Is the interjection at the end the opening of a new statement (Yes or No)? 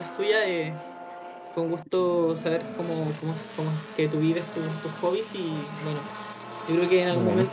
No